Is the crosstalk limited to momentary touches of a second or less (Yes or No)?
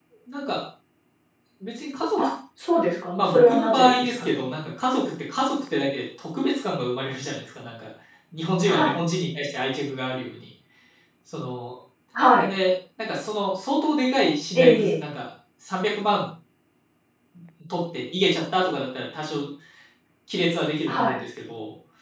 No